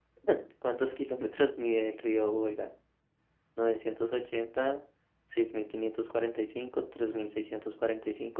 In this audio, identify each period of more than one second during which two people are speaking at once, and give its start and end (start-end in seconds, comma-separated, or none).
none